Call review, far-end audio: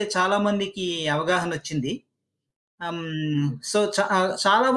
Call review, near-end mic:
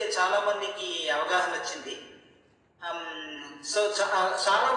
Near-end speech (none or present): none